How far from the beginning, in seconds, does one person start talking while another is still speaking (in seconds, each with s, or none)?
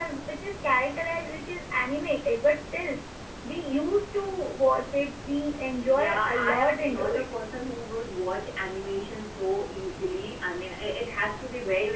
5.9 s